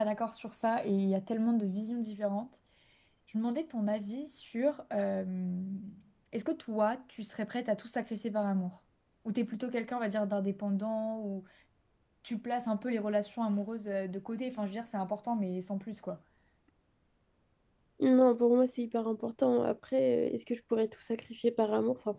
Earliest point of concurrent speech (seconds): none

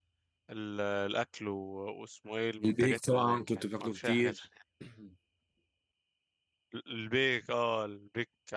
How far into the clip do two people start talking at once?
2.6 s

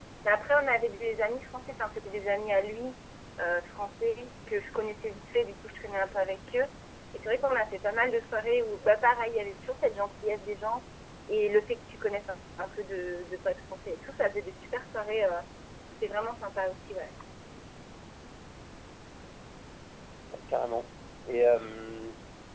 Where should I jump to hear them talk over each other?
none

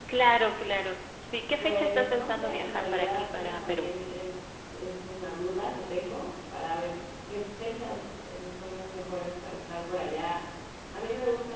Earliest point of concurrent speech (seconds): 1.6 s

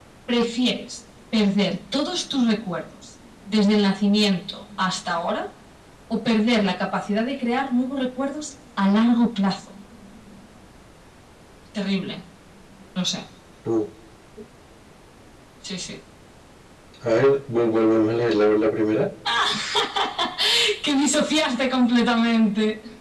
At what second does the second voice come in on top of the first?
none

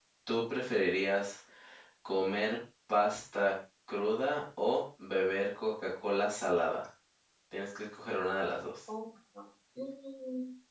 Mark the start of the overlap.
none

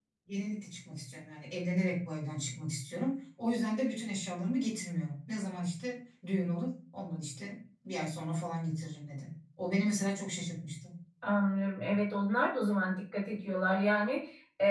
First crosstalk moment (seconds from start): none

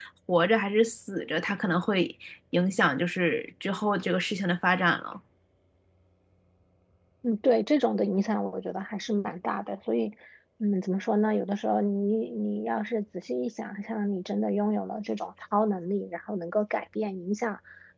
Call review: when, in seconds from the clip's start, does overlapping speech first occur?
none

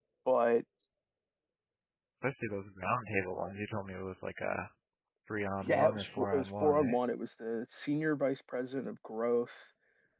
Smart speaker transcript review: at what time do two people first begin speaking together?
5.6 s

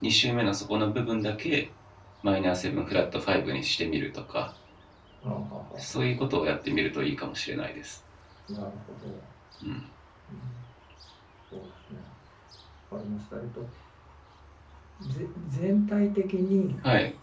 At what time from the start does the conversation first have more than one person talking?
none

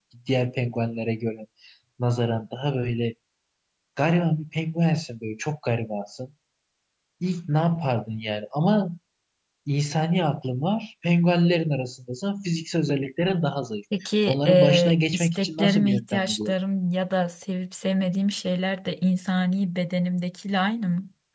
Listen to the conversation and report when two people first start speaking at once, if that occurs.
14.3 s

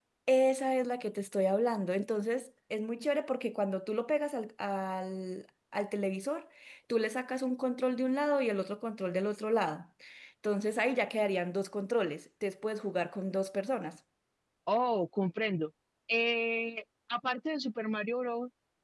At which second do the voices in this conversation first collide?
none

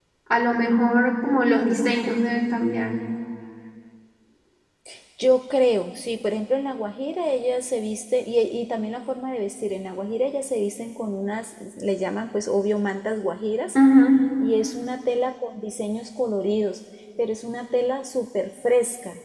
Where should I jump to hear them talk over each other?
none

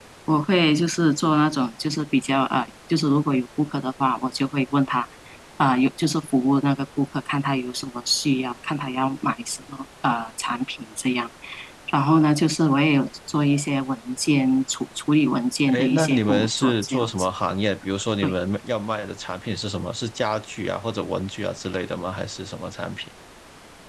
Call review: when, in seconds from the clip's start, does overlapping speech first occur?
15.7 s

